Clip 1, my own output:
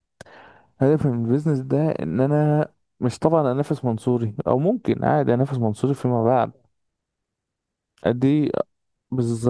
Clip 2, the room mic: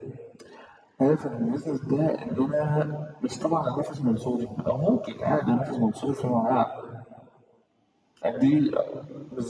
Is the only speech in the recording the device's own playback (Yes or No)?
Yes